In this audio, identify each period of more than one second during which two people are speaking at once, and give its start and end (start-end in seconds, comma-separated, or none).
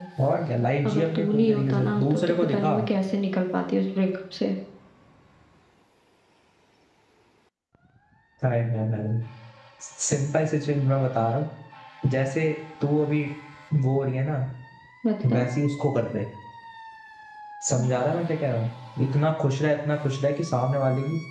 0.8-2.8